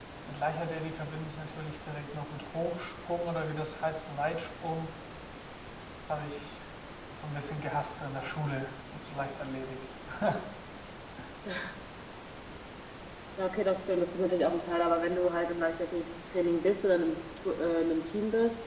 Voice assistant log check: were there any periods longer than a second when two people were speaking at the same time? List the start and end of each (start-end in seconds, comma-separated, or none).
none